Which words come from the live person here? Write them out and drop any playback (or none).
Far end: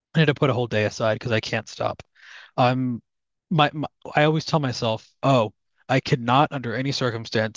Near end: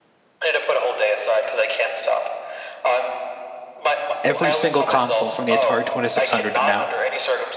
every single console from the Atari 2600 to now,